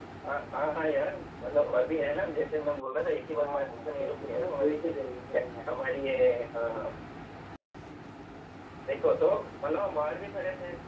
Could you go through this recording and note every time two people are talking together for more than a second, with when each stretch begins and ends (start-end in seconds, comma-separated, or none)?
3.4-4.8